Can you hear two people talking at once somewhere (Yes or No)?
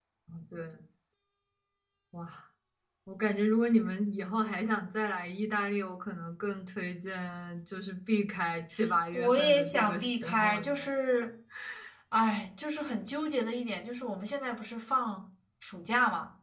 Yes